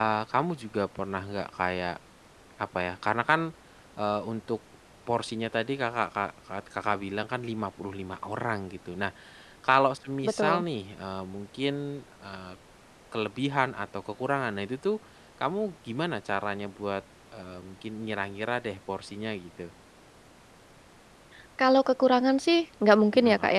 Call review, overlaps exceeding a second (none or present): none